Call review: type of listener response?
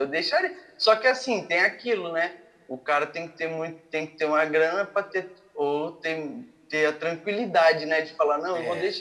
listening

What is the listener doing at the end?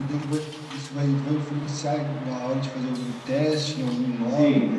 taking over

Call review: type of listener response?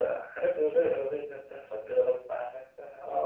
taking over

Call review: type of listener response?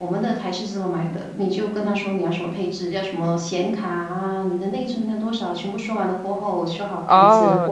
taking over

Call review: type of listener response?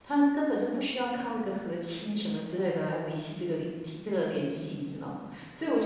listening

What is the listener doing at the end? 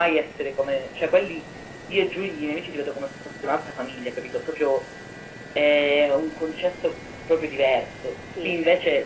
listening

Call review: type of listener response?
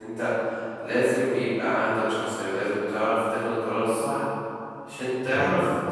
listening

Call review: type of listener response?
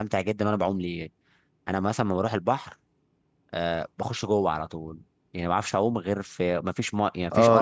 taking over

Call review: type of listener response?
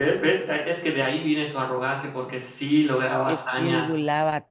taking over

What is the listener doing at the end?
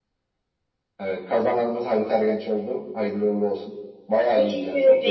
taking over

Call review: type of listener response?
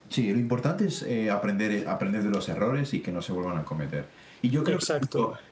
listening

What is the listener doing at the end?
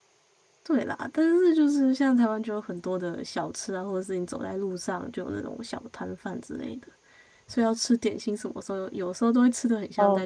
taking over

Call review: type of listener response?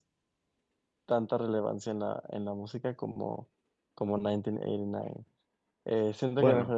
listening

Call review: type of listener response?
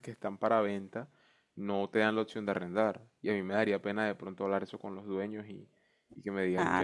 taking over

